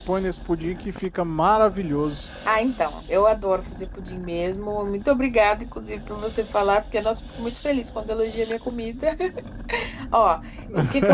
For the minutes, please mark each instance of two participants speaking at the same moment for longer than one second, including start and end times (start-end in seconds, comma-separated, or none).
none